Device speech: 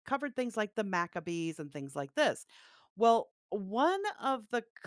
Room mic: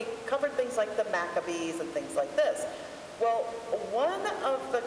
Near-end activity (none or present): none